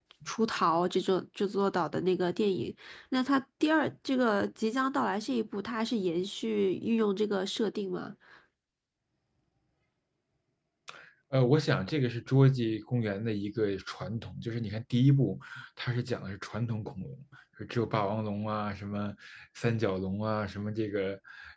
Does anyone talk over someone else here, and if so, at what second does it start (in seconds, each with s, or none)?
none